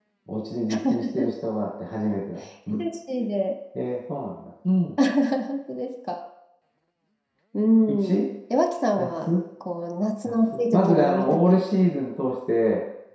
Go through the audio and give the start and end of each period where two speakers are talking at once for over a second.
10.2-11.6

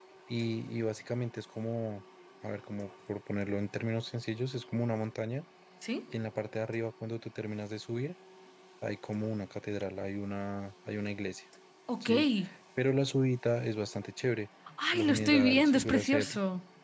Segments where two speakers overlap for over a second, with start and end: 14.9-16.3

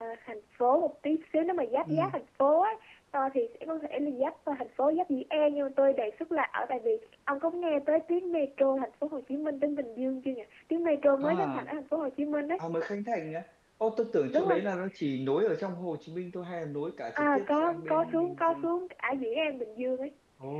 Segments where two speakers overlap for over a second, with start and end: 17.1-18.7

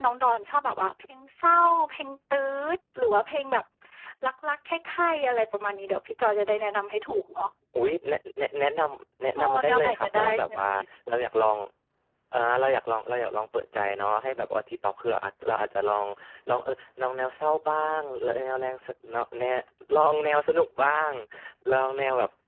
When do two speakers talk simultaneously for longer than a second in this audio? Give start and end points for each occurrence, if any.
9.4-10.7

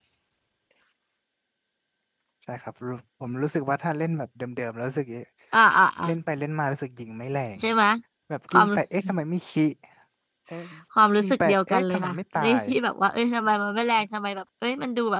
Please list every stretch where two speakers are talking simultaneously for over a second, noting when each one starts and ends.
11.2-12.6

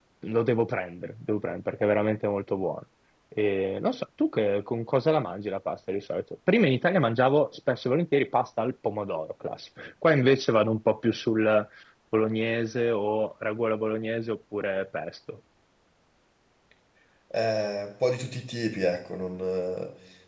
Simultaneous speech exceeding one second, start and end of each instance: none

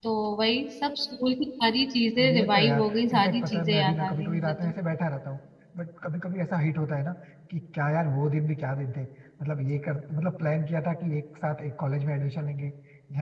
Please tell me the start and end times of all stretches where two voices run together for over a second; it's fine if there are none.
2.3-4.7

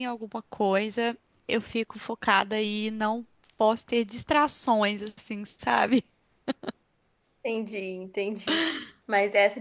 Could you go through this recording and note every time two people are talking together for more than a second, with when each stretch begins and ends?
none

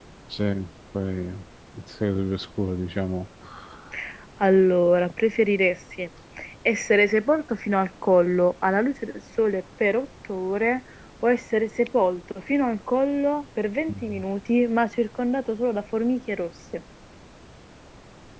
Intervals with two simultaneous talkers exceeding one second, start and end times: none

